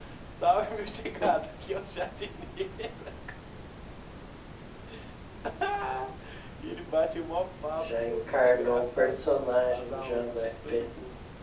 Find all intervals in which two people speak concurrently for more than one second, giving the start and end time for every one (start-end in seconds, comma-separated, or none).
7.8-10.9